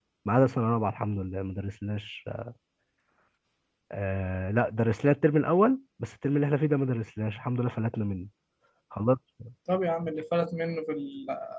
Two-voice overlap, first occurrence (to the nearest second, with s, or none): none